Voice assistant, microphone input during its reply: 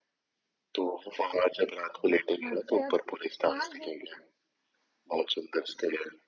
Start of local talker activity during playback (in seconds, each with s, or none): 2.4 s